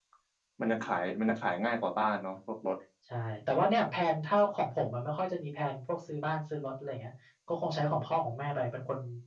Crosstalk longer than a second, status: none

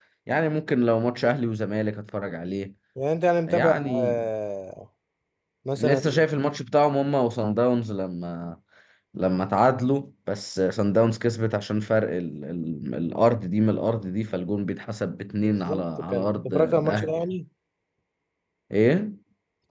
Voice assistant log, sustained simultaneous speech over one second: present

